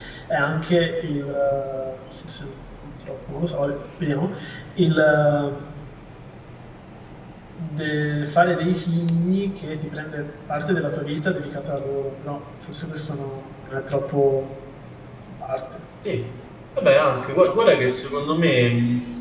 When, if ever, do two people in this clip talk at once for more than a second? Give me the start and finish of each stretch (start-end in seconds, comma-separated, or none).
none